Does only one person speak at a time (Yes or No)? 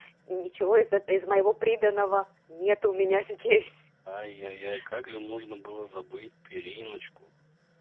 Yes